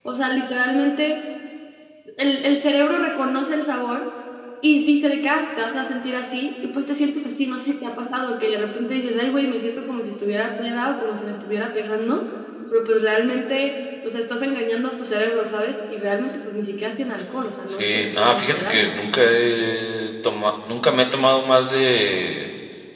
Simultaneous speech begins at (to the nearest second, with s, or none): 18 s